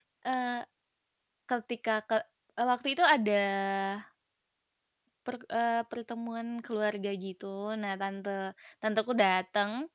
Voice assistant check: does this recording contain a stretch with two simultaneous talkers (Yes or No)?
No